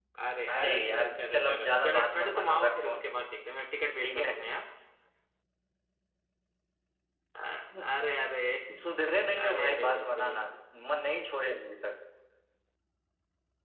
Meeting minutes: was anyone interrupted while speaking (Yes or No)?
Yes